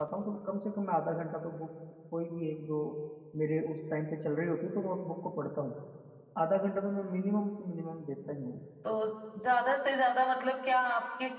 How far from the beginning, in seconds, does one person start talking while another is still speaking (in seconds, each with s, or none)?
none